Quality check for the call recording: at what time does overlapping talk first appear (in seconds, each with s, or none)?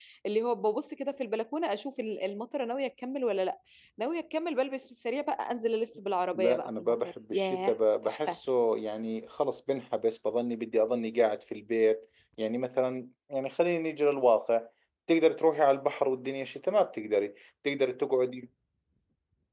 6.3 s